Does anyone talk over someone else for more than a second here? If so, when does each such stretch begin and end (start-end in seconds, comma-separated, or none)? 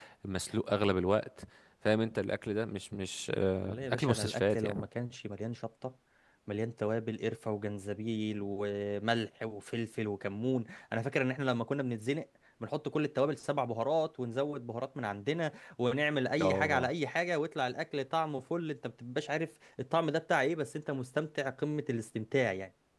3.6-4.8